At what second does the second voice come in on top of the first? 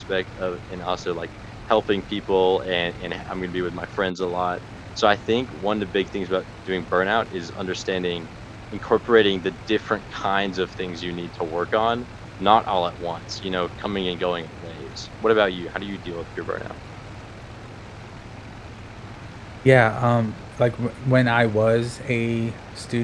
none

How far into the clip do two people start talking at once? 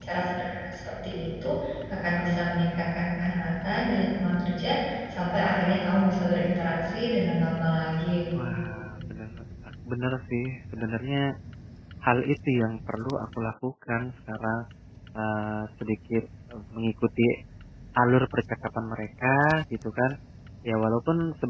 none

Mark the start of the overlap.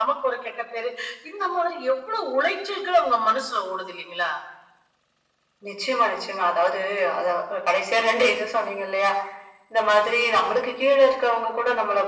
none

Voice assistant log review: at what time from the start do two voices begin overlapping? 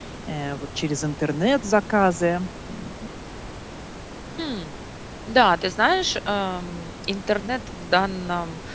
none

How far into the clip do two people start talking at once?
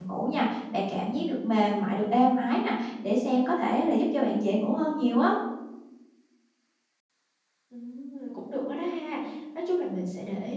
none

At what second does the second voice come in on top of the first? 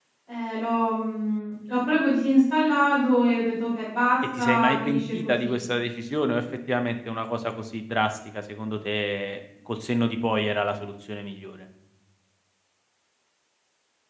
4 s

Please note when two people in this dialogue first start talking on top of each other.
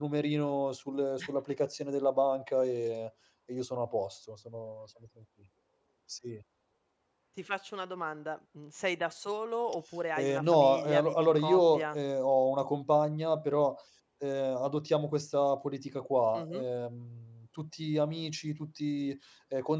10 s

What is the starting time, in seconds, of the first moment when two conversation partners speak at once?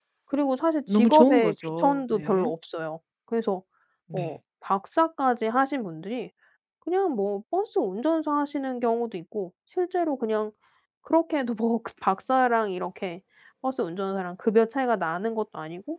1 s

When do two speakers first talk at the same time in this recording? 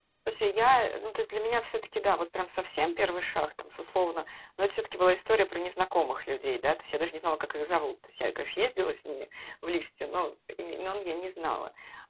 none

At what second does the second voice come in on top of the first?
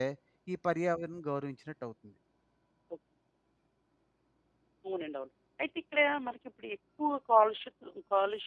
none

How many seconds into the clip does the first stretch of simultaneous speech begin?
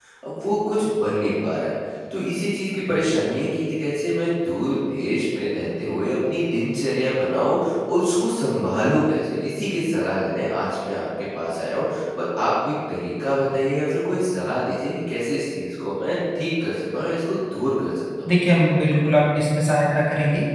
none

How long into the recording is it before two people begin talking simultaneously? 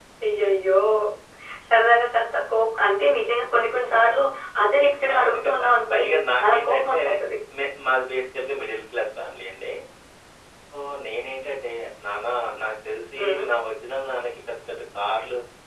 5 s

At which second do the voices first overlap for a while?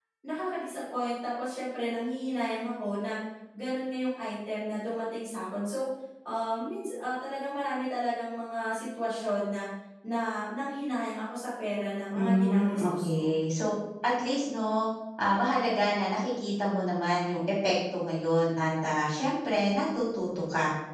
12 s

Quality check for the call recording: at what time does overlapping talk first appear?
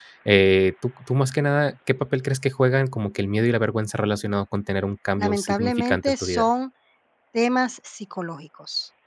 5 s

